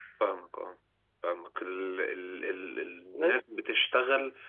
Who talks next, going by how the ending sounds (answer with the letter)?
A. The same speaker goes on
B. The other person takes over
A